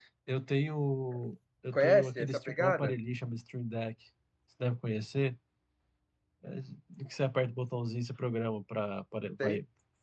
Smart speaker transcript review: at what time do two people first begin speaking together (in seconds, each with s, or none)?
1.7 s